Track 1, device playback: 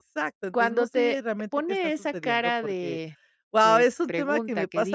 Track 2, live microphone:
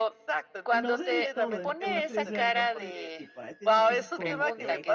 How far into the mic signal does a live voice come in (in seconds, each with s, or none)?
0.7 s